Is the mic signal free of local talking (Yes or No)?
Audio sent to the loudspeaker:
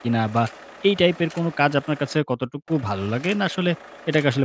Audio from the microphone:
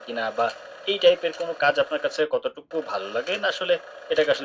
Yes